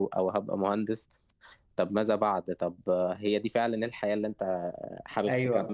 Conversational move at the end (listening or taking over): taking over